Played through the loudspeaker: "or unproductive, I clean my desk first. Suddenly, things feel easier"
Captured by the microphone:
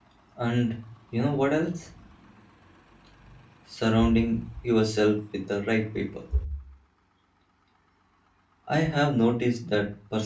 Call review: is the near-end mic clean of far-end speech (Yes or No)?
Yes